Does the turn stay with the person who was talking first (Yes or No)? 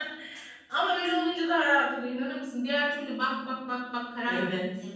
No